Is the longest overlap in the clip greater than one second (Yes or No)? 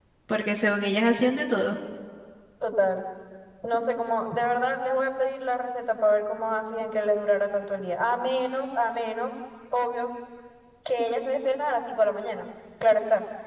No